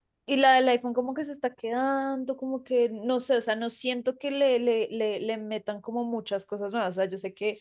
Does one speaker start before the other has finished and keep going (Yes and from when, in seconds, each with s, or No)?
No